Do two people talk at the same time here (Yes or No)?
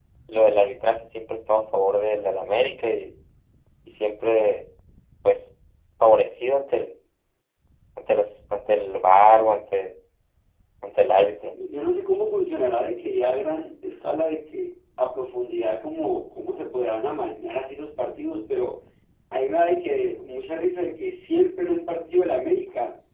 No